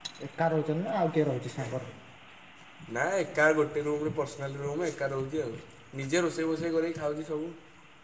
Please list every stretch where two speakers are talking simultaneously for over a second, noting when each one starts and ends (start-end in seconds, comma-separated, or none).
none